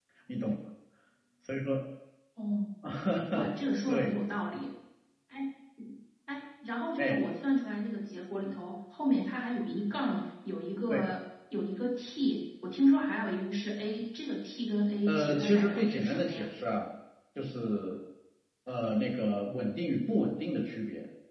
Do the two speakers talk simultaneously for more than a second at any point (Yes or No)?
Yes